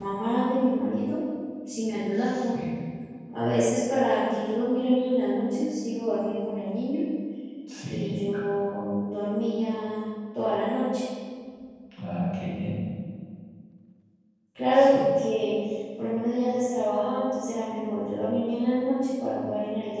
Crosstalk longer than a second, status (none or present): none